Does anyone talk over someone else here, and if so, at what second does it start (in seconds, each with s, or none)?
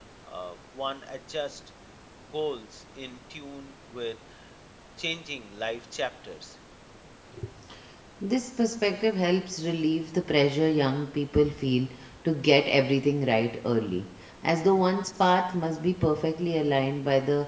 none